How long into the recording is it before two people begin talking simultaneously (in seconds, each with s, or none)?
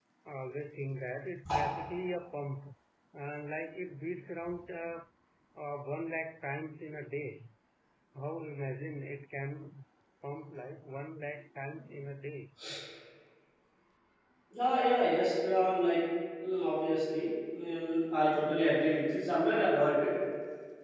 none